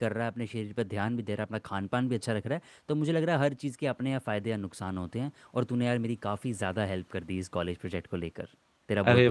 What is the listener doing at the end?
taking over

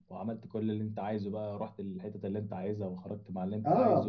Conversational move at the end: taking over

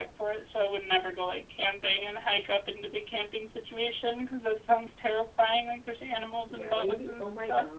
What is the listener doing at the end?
taking over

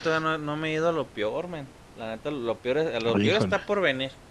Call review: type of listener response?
listening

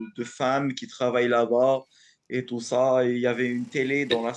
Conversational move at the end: listening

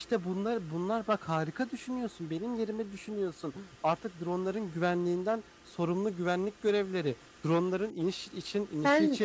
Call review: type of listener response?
listening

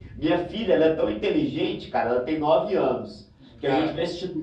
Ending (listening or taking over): listening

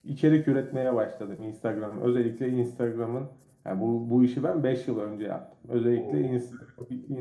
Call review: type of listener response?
listening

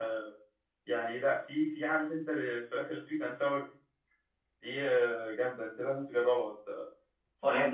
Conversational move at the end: taking over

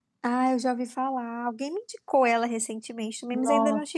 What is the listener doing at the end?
taking over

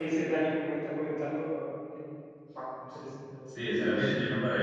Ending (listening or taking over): taking over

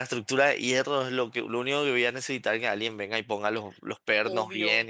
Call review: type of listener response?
taking over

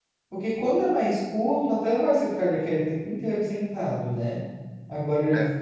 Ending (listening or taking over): listening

